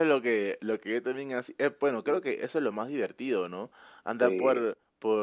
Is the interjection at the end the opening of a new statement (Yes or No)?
No